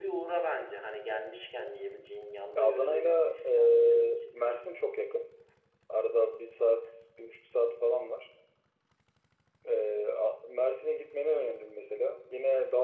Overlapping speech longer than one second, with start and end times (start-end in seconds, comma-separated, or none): 2.5-4.6